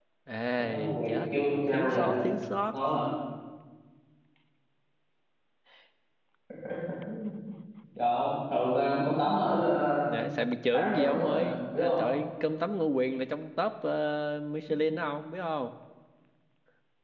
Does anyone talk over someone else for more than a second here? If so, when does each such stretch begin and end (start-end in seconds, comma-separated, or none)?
0.6-2.1, 10.7-12.0